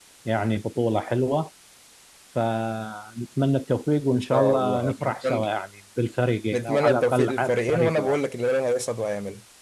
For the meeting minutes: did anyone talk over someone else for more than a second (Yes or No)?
Yes